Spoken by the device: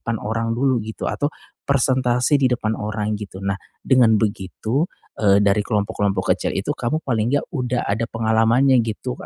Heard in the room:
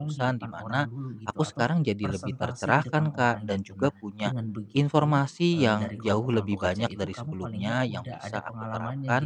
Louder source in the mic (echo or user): user